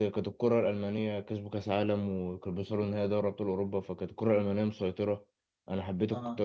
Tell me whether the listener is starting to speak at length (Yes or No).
No